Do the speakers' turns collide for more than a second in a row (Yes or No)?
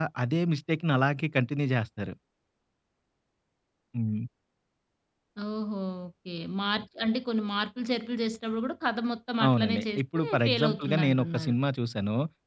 Yes